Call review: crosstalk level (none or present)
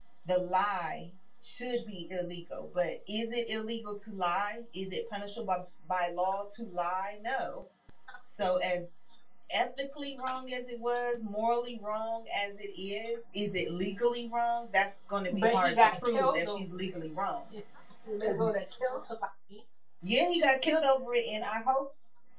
present